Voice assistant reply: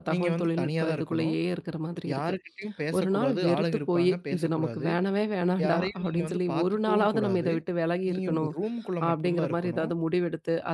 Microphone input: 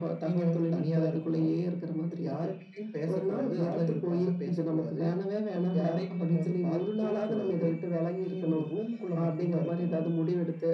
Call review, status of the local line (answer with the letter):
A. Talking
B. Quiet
B